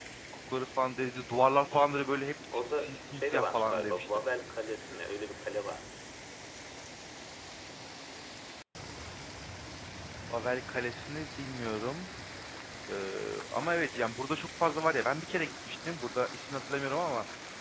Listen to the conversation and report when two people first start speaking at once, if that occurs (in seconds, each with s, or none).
2.5 s